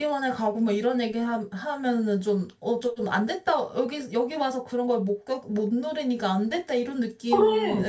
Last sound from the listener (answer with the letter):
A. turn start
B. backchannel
B